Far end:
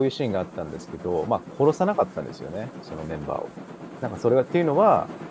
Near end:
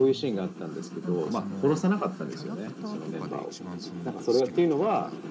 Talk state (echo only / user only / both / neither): both